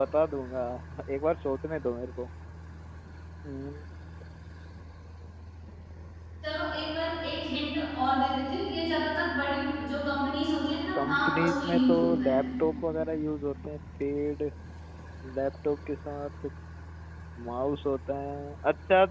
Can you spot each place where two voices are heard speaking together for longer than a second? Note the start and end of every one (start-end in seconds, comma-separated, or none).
10.9-12.4